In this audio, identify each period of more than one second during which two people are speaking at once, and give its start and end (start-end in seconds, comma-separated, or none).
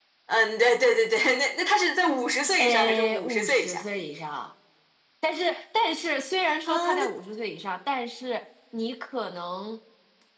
2.6-3.8